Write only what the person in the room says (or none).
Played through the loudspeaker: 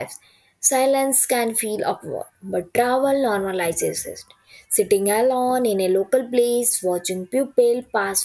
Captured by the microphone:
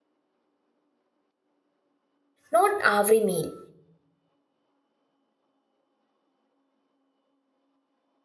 not every meal.